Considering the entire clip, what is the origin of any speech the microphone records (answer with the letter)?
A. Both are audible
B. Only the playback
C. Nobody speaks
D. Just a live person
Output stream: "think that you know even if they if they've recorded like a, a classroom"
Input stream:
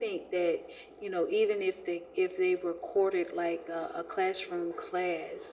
B